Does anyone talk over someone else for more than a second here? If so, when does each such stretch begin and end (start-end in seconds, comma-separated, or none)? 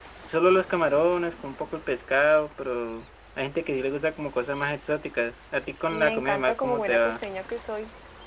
5.9-7.1